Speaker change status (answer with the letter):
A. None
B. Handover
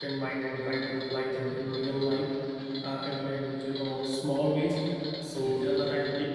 A